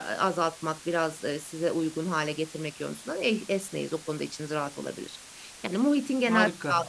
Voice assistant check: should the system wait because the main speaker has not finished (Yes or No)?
Yes